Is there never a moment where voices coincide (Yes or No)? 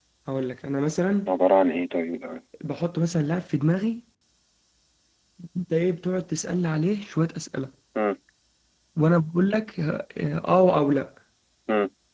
Yes